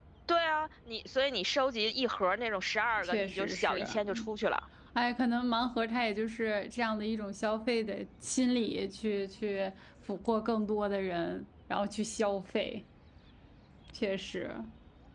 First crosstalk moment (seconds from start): 3.0 s

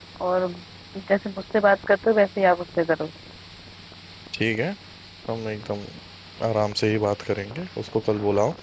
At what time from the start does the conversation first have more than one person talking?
none

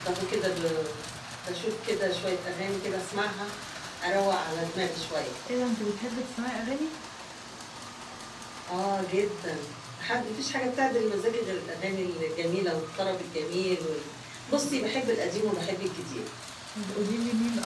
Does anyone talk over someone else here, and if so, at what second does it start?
none

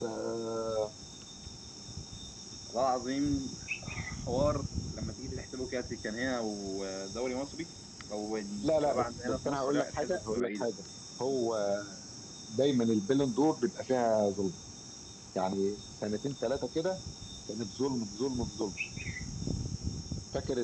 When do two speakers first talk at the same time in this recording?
8.6 s

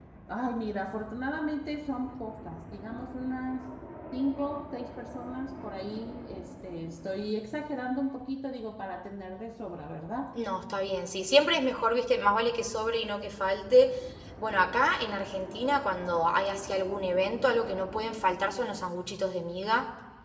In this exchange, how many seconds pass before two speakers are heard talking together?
none

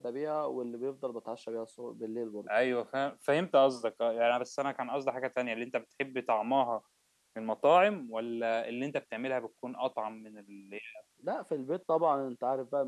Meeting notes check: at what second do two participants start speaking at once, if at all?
none

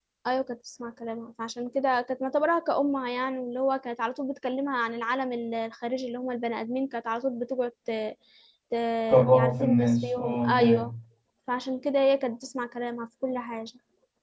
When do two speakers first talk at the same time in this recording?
9.3 s

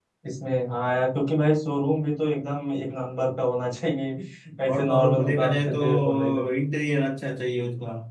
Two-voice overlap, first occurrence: 4.7 s

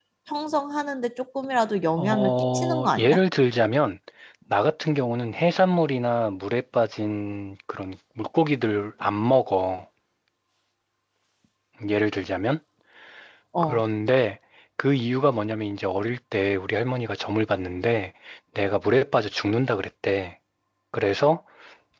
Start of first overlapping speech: 2.0 s

